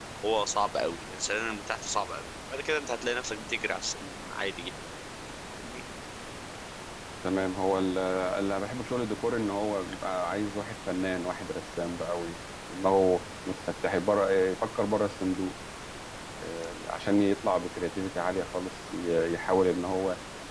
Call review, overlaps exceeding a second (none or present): none